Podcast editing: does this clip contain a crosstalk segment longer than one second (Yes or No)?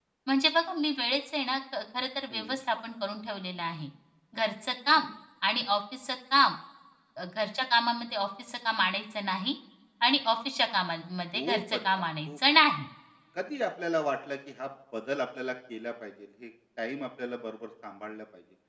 Yes